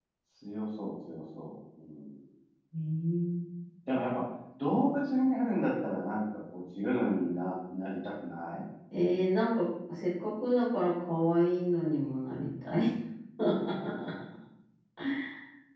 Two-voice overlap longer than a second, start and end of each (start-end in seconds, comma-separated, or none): none